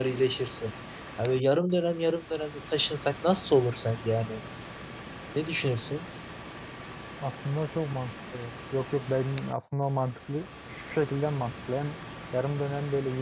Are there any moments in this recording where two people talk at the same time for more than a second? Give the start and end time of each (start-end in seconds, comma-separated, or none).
none